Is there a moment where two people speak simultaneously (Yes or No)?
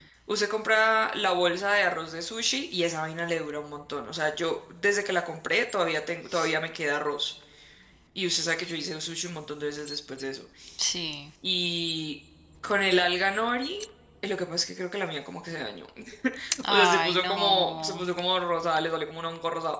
Yes